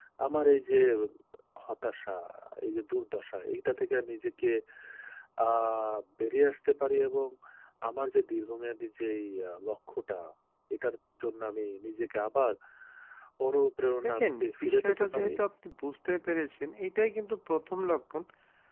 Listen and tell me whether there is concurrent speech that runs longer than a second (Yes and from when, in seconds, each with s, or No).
Yes, from 14.0 s